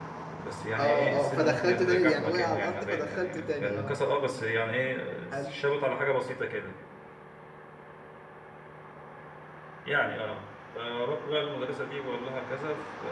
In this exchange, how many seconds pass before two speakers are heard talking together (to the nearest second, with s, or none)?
1 s